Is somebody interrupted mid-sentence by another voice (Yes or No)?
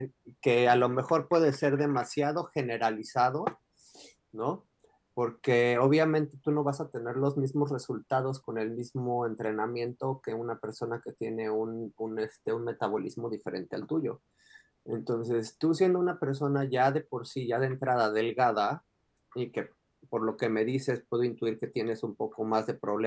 No